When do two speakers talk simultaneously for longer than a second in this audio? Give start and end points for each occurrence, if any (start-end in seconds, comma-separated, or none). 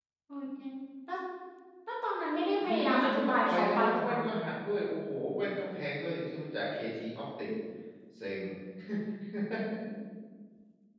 2.6-4.2